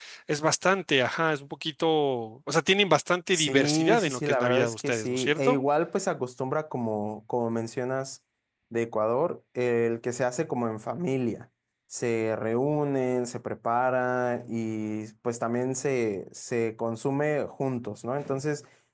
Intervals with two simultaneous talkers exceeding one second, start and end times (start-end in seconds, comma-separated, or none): 3.3-5.6